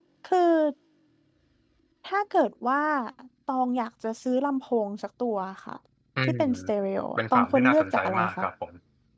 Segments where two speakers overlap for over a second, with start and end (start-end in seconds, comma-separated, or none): 7.2-8.4